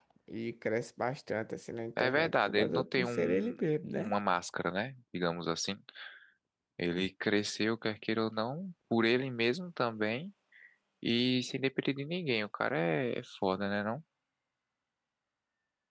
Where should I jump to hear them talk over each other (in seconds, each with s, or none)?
2.0 s